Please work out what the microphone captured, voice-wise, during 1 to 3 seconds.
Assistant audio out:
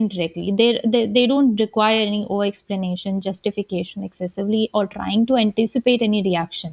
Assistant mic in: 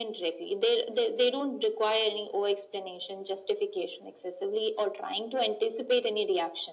echo only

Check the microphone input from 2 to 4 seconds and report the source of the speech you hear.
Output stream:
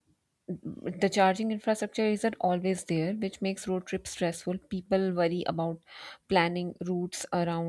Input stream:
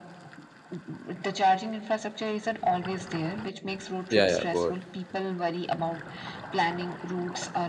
echo only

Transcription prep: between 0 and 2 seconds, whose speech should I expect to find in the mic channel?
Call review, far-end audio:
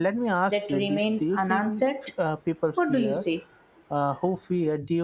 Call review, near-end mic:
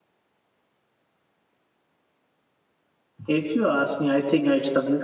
neither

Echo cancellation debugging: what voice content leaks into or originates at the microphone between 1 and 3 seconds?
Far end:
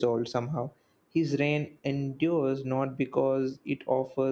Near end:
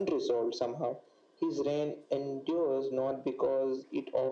echo only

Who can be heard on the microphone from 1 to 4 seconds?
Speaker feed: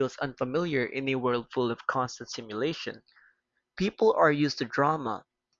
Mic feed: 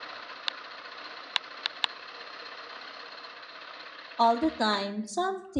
neither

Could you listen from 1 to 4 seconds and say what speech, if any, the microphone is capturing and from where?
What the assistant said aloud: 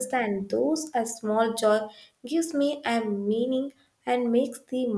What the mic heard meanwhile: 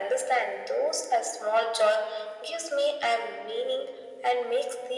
echo only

